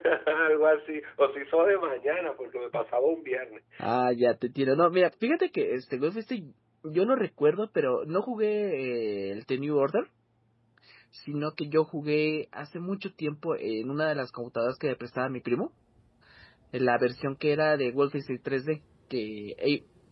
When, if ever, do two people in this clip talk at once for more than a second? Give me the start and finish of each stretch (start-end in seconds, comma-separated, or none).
none